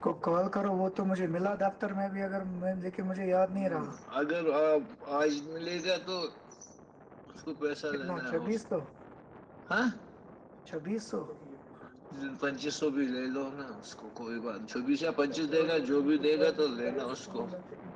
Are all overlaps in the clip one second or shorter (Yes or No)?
No